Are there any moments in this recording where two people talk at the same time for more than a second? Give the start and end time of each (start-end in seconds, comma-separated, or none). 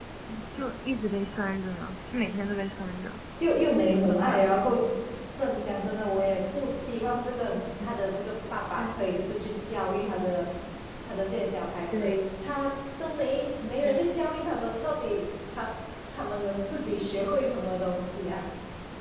none